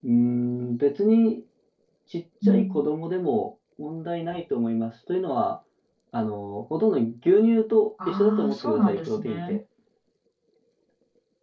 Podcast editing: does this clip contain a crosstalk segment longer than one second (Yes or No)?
Yes